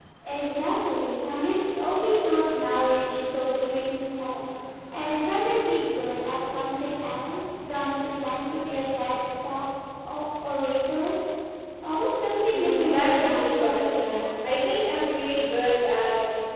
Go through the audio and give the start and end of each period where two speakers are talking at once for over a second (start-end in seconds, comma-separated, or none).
12.5-14.4